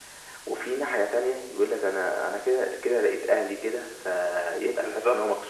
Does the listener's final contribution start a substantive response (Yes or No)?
Yes